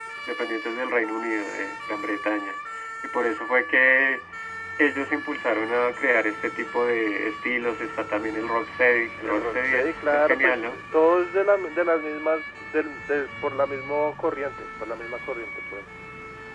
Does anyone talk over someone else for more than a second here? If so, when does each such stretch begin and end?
9.2-10.8

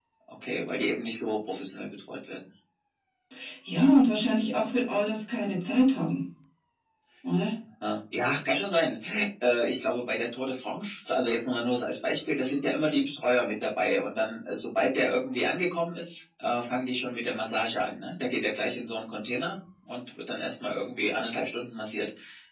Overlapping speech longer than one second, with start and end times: none

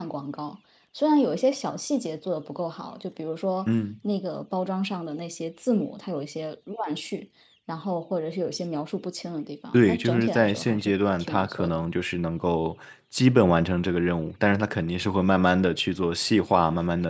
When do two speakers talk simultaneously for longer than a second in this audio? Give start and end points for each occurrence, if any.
9.7-11.8

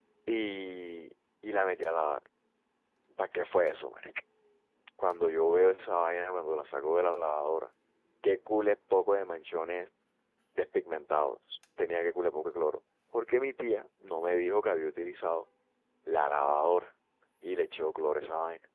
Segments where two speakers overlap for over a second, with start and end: none

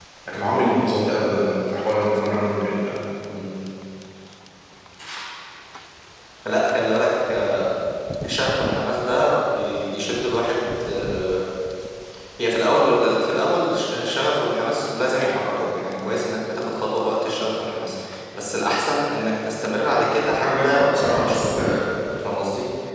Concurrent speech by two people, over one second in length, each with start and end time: 20.4-21.8

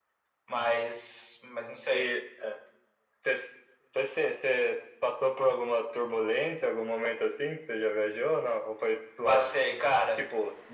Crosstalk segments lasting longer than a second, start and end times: none

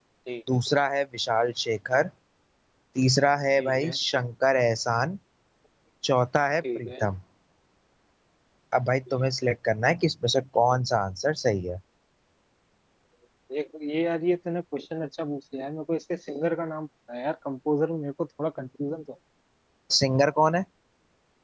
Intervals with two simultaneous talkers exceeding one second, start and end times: none

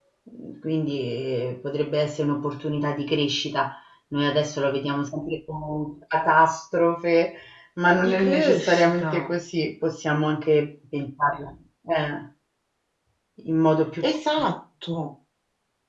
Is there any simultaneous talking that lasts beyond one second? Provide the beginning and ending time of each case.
8.0-9.3

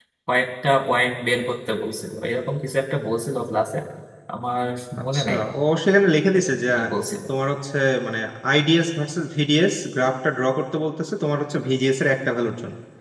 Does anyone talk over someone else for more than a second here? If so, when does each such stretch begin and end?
none

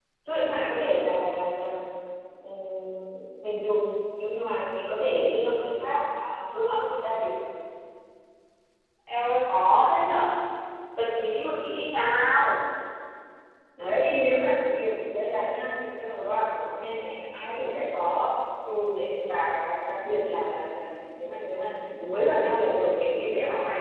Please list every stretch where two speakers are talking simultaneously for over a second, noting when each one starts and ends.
none

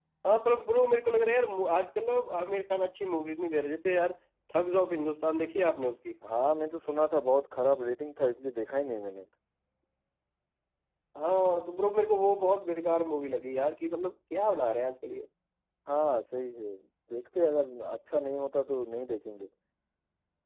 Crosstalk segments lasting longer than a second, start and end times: none

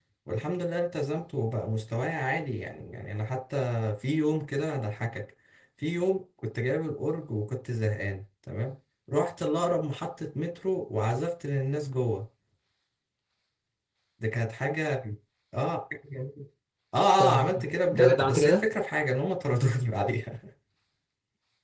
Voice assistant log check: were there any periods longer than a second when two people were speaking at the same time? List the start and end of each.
17.2-18.6

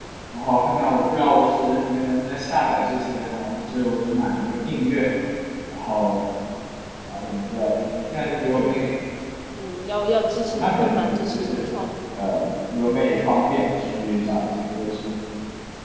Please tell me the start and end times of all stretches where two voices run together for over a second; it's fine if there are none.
10.4-11.7

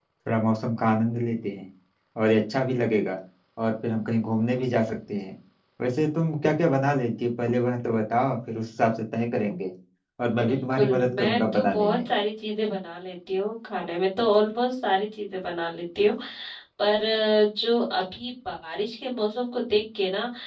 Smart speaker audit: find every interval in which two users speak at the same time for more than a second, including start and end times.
10.5-12.0

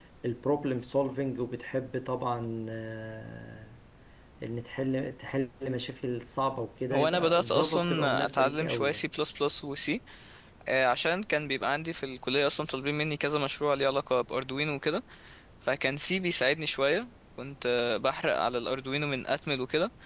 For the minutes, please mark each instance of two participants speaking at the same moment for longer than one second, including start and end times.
6.9-9.0

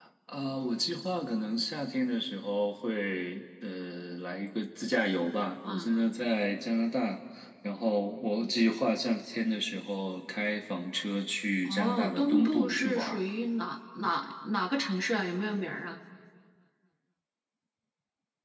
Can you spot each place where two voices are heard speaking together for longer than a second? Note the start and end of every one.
11.7-13.2

